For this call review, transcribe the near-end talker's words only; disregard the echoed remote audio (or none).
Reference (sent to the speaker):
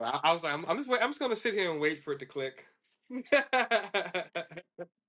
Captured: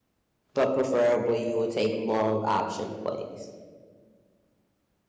but preferably you would take long option plays.